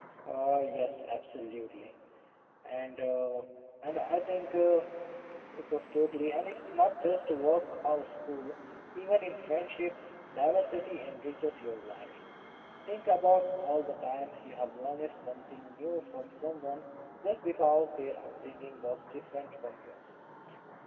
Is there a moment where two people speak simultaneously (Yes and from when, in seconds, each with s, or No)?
No